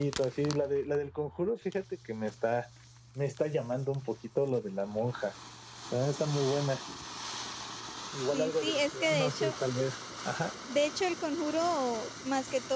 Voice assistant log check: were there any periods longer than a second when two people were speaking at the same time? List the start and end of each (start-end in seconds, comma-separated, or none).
8.3-9.5